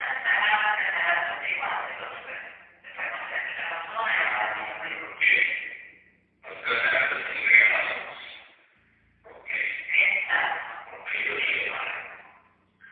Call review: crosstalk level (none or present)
present